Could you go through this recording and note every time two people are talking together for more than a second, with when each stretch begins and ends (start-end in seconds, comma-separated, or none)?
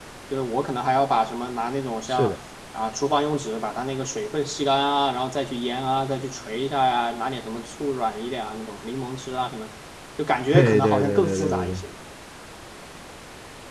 10.5-11.8